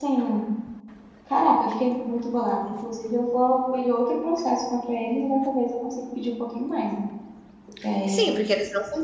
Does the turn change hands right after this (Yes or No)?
Yes